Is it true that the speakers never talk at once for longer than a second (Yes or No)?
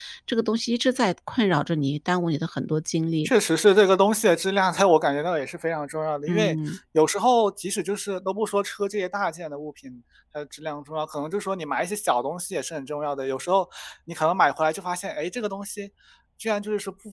Yes